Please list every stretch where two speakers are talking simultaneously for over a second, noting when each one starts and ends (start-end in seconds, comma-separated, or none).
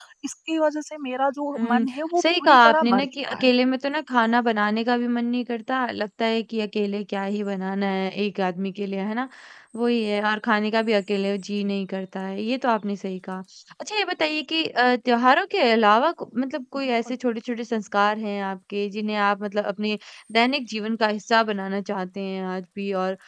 1.6-3.5